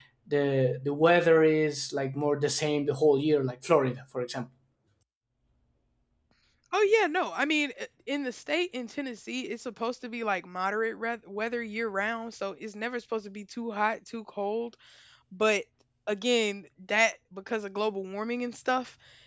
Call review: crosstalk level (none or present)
none